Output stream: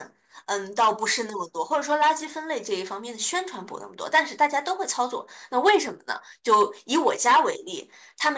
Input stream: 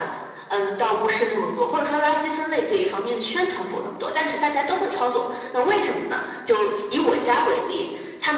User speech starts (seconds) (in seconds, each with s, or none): none